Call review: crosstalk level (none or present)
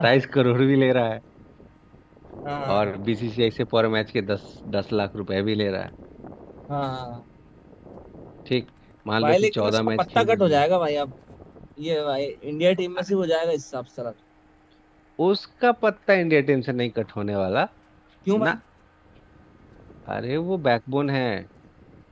present